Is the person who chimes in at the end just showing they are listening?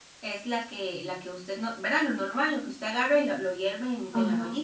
No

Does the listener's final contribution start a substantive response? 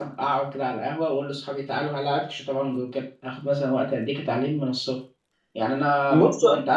No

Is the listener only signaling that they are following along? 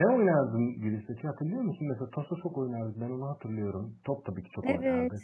No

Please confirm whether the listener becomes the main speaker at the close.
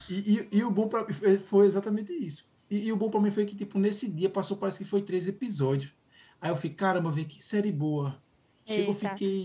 Yes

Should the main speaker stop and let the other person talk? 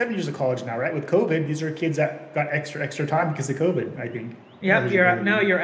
Yes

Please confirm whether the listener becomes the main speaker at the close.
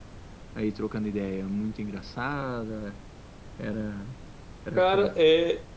Yes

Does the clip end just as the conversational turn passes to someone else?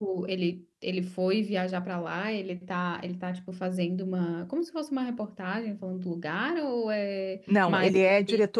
Yes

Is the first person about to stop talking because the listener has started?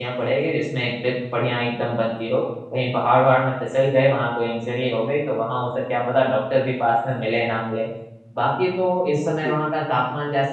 No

